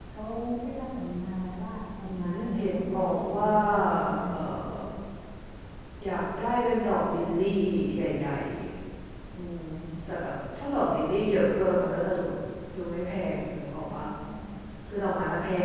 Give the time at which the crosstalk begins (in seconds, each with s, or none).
2.0 s